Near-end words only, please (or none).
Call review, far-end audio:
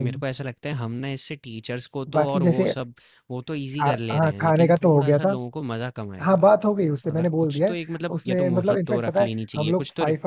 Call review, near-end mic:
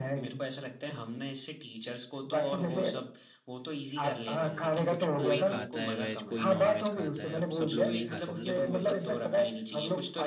कुछ कोई खाता है वेज कोई नॉन वेज खाता है अब सब लोग नहीं खाते ना नॉन वेज